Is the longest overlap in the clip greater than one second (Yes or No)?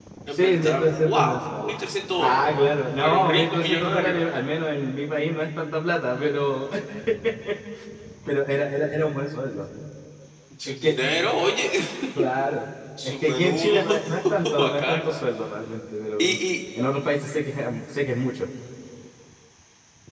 Yes